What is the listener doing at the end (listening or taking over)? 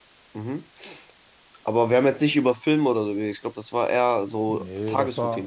taking over